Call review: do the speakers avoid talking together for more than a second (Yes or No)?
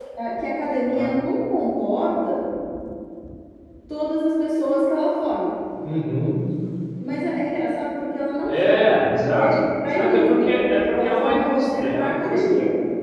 No